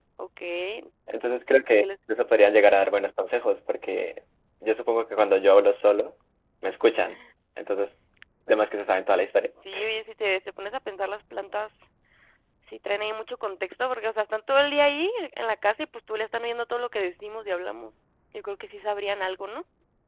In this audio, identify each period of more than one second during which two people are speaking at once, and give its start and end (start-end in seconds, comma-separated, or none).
none